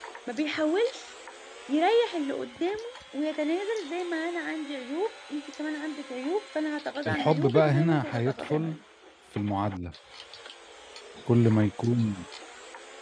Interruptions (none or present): present